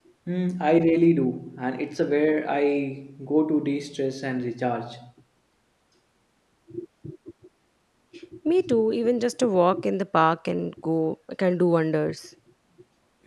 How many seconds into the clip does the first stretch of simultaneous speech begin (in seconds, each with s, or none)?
none